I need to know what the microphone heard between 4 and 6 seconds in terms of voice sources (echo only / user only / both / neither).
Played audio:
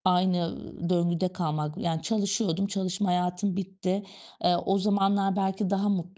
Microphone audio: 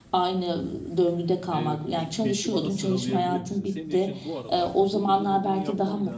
both